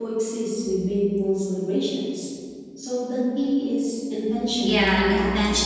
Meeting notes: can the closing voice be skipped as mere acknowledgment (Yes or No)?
No